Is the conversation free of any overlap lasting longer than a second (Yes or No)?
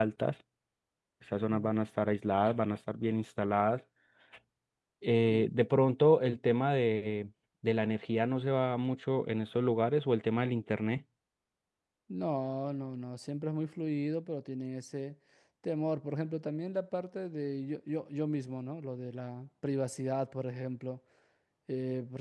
Yes